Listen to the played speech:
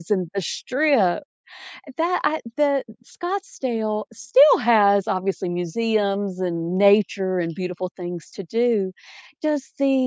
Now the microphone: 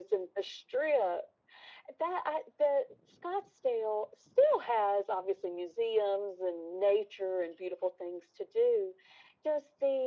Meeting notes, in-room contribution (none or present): none